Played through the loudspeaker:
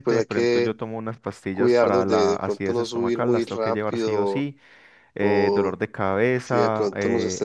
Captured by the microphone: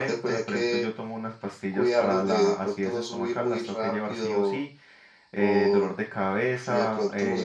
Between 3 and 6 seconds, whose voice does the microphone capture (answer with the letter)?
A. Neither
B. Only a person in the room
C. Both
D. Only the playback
D